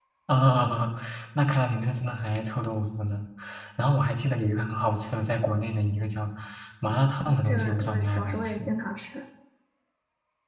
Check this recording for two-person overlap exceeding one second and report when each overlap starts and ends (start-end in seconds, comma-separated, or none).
7.2-8.7